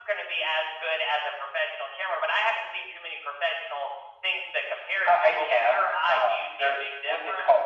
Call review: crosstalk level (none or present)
present